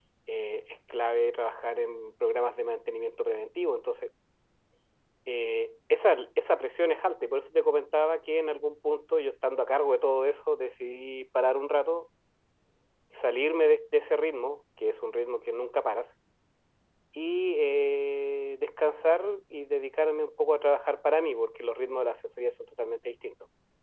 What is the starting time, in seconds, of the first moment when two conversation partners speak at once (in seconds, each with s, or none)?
none